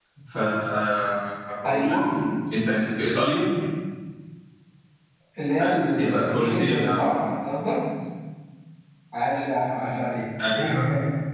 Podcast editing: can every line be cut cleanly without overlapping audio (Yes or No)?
No